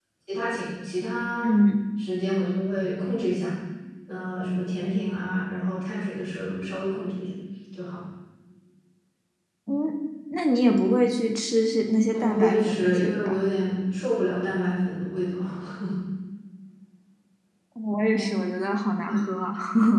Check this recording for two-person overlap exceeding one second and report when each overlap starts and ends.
12.1-13.4

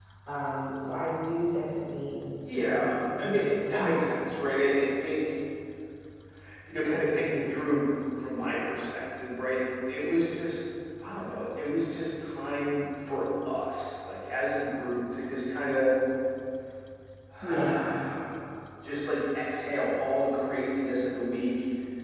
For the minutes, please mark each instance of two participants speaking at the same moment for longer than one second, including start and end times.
2.7-4.0

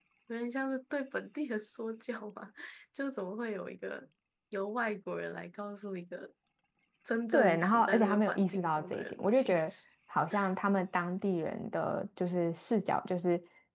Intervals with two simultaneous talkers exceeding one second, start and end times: 7.3-9.7

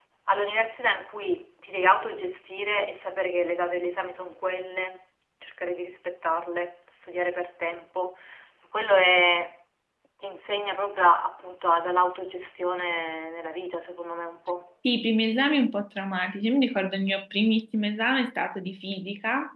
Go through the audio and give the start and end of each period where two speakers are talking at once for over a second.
none

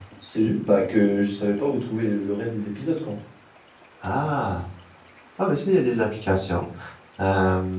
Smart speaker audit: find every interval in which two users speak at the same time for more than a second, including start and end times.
none

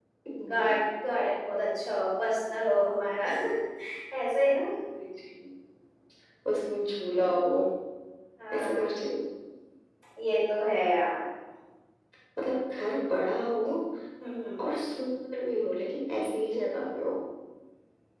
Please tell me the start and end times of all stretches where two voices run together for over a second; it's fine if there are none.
none

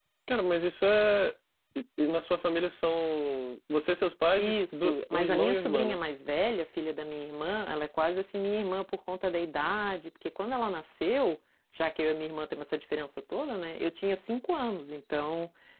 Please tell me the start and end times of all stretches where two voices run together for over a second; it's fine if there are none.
4.4-6.0

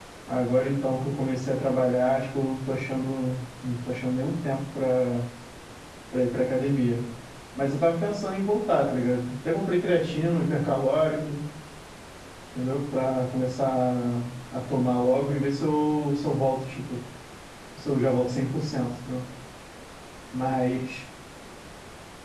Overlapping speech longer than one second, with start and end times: none

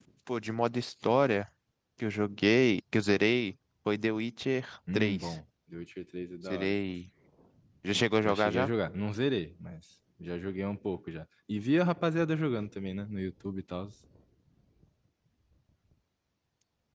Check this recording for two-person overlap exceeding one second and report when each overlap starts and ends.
none

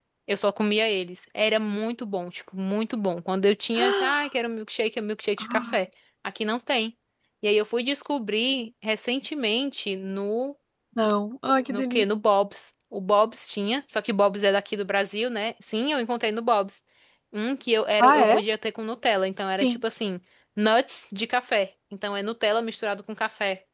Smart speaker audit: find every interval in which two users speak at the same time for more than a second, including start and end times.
none

